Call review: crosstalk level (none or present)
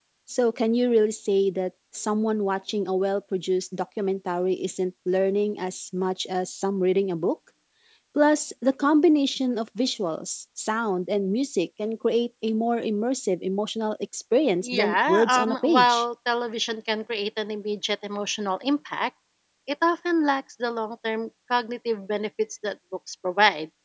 present